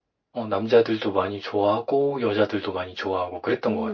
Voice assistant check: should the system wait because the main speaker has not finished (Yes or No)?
No